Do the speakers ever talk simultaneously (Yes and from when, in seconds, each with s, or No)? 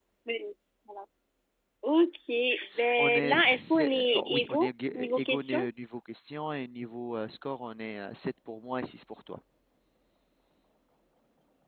Yes, from 3.0 s